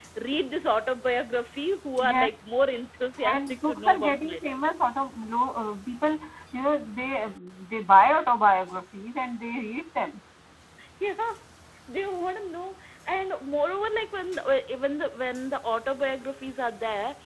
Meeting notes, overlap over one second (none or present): present